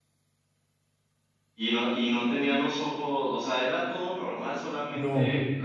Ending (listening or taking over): taking over